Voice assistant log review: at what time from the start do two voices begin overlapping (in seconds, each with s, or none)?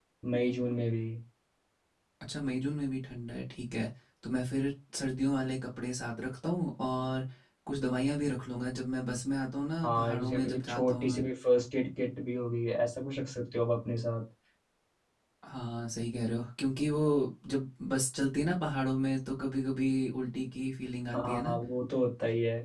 9.8 s